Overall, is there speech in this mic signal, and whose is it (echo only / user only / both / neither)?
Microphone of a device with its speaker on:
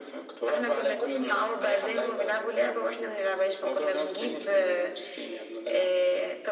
echo only